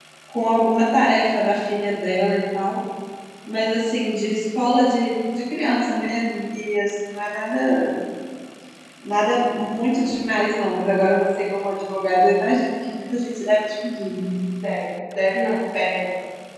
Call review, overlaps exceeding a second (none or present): none